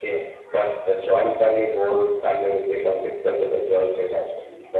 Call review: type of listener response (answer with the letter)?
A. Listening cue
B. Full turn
B